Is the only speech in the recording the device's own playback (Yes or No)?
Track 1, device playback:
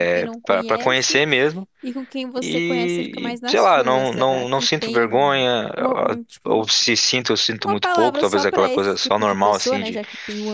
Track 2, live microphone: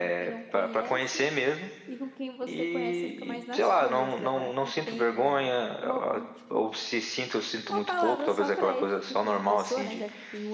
Yes